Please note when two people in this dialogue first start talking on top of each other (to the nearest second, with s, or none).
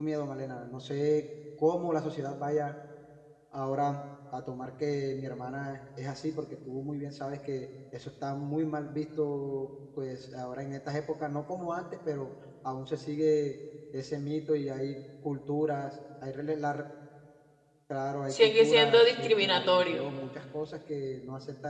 18 s